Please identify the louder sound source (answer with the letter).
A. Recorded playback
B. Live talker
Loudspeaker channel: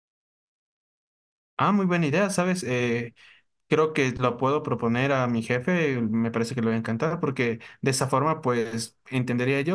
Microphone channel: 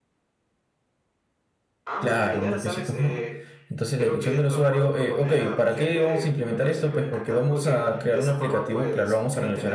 B